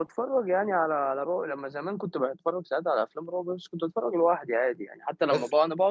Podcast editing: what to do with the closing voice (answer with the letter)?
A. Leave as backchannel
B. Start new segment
A